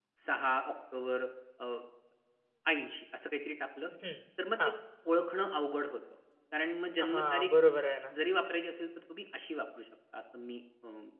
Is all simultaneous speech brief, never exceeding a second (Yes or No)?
Yes